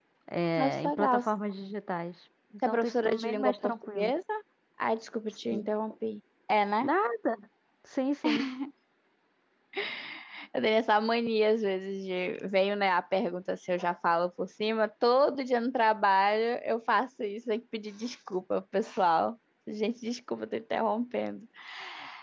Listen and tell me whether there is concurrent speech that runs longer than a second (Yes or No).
Yes